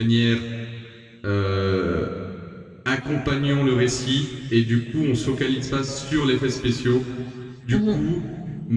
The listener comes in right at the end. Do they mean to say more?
No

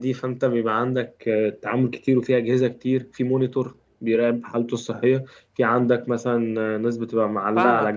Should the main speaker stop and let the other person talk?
Yes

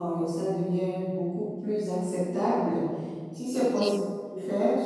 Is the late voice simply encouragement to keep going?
Yes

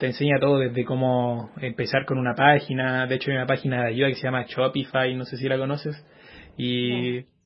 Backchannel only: Yes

